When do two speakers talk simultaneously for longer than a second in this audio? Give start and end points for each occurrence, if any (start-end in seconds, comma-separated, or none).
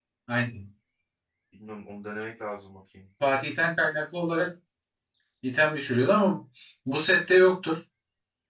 none